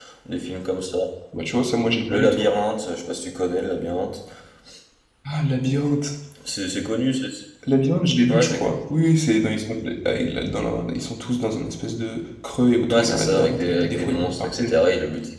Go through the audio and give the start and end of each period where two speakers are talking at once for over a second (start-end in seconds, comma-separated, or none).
12.9-14.7